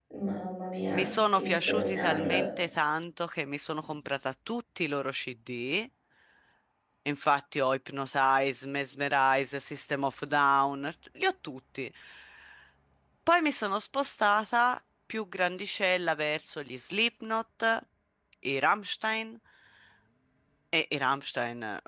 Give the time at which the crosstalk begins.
0.9 s

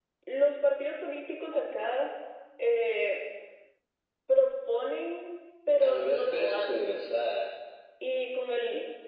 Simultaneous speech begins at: 5.8 s

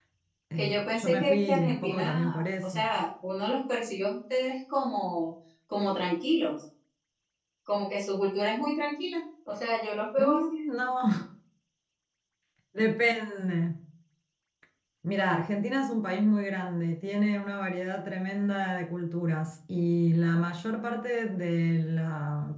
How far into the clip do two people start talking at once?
0.6 s

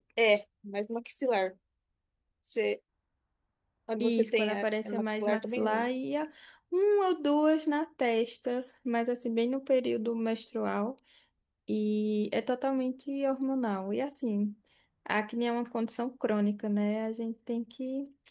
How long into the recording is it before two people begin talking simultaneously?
4.0 s

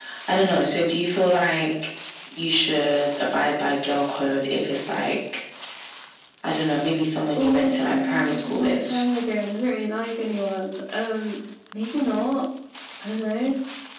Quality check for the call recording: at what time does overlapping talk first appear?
7.3 s

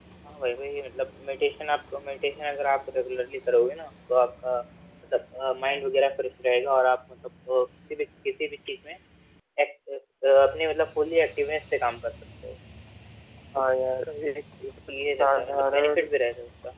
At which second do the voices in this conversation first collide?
14.9 s

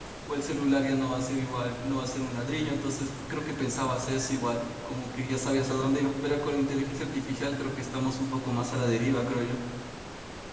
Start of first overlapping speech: none

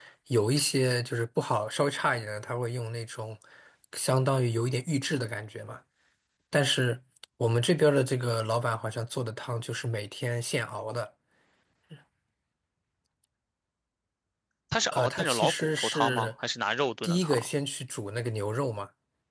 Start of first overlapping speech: 14.9 s

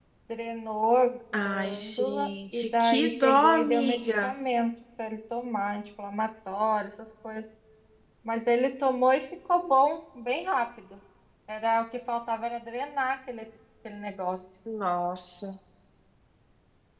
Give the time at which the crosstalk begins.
1.3 s

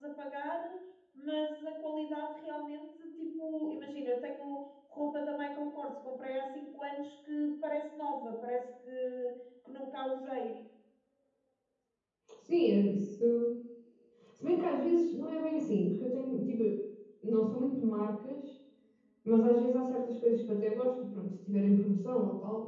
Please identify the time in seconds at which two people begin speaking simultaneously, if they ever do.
none

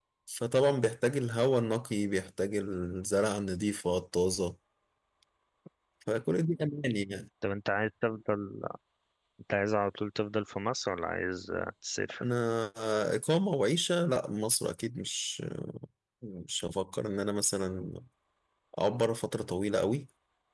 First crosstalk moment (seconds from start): none

